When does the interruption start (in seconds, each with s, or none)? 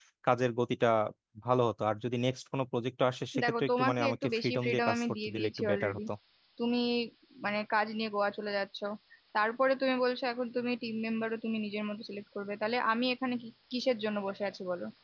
3.3 s